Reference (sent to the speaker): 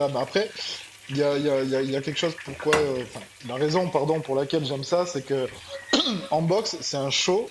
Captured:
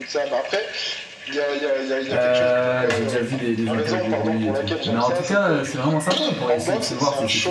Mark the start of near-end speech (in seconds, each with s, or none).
2.1 s